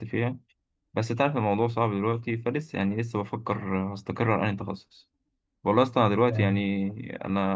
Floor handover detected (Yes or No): No